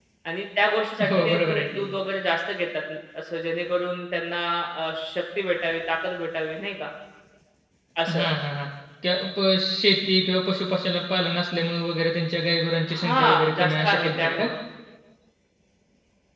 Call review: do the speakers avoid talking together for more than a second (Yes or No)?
No